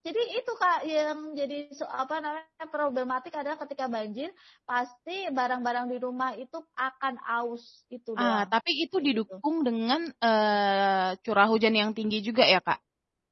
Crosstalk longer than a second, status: none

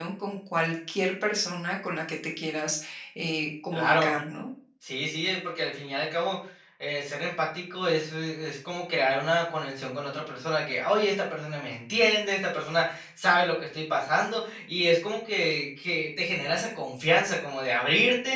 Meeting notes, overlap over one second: none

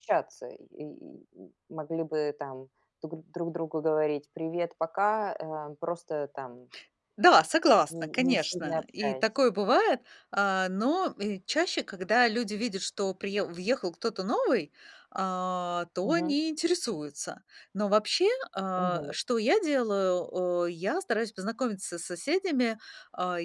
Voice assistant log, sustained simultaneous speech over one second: present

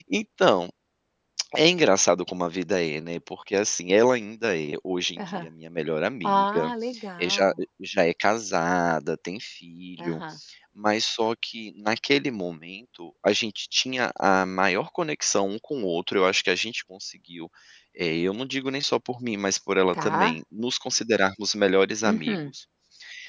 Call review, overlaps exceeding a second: none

